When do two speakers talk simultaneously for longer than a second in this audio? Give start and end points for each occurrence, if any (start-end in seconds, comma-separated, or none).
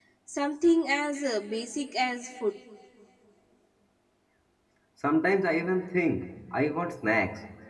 none